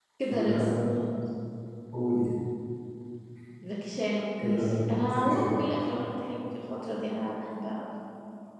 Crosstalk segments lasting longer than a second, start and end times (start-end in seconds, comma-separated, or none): 4.4-5.6